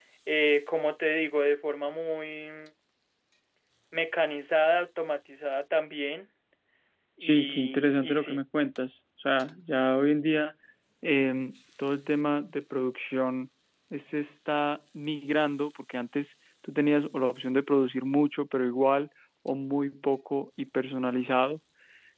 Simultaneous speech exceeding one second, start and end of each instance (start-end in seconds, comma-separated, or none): 7.2-8.4